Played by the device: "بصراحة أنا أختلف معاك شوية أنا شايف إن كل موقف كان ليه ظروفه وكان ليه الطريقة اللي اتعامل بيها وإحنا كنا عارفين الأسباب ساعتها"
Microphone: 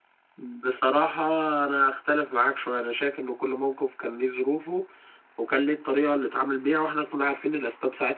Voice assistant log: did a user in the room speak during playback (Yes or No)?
No